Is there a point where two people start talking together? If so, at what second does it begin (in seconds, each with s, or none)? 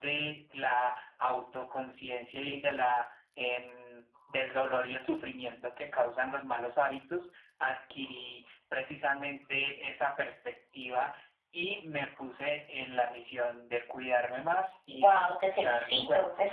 14.9 s